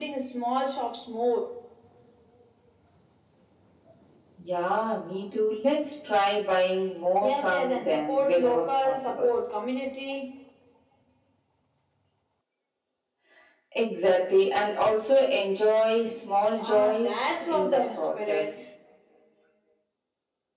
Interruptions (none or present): present